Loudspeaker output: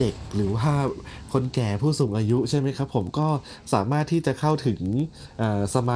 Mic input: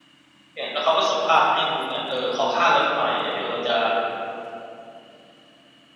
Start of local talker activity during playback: 1 s

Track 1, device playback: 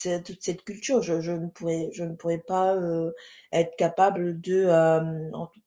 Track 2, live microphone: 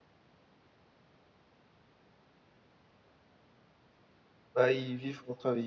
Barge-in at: 5 s

